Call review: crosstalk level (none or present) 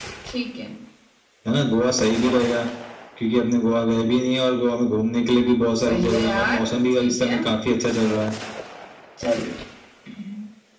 present